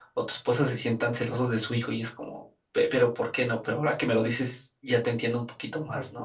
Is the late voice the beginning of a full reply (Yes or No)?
Yes